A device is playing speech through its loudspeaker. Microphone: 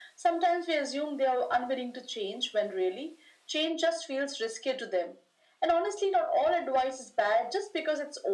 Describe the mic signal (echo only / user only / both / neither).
echo only